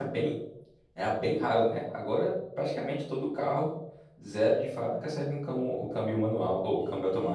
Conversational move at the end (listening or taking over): taking over